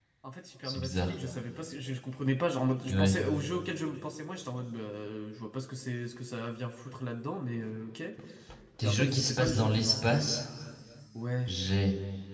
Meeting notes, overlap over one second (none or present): present